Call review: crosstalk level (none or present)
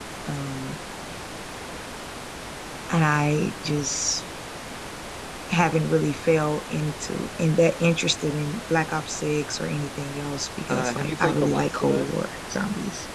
present